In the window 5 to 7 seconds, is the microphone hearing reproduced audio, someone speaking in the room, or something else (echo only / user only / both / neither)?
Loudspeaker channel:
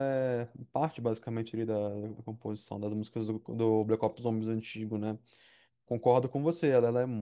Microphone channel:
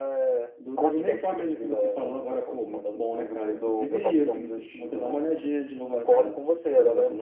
both